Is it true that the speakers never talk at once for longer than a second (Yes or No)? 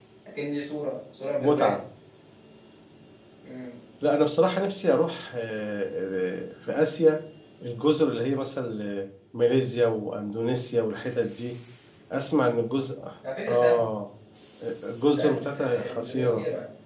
No